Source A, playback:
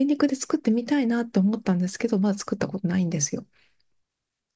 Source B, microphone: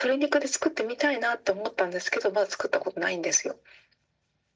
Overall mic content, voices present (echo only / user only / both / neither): echo only